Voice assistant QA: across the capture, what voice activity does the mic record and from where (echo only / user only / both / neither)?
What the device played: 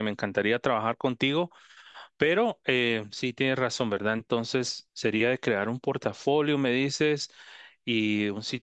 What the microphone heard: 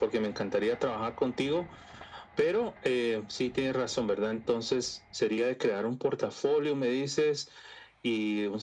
echo only